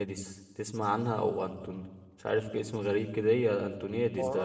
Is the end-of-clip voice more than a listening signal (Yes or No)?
Yes